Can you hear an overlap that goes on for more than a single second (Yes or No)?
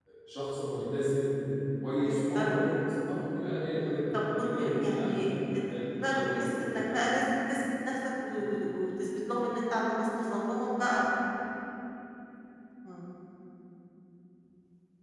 Yes